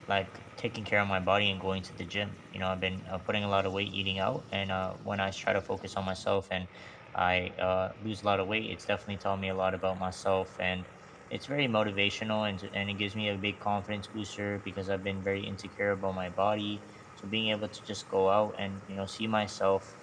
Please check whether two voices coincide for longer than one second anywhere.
No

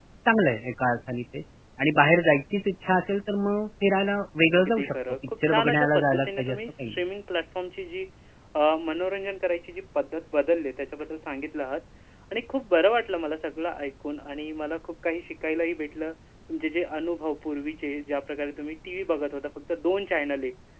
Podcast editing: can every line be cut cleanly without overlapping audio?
No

